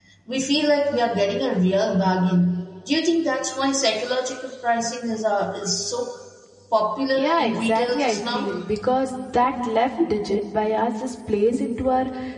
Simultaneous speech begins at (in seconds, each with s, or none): 7.1 s